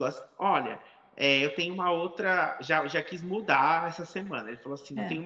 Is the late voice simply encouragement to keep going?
Yes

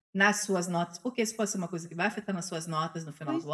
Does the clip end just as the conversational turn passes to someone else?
Yes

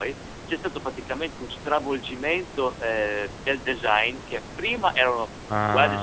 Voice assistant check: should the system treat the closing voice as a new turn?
No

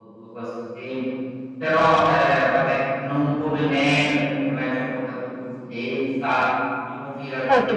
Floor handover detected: Yes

